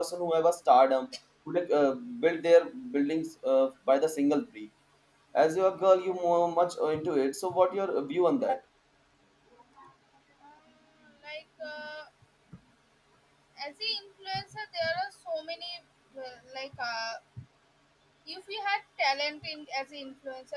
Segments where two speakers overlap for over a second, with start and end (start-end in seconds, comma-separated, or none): none